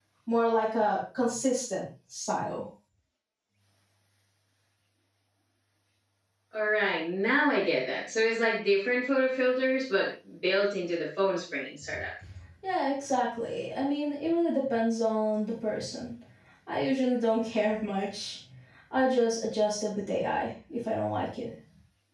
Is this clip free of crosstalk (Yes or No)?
Yes